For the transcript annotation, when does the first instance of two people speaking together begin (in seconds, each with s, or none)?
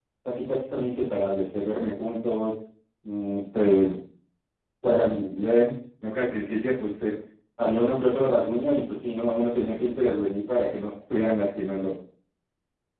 none